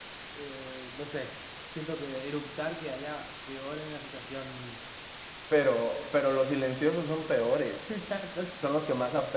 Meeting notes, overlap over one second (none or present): none